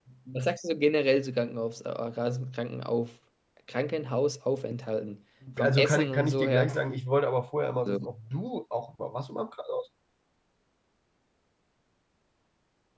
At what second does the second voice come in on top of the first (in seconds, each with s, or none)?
5.4 s